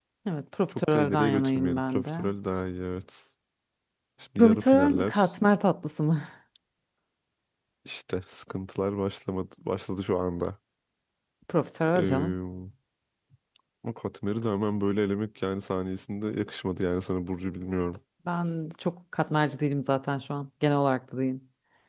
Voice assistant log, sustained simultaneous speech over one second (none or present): present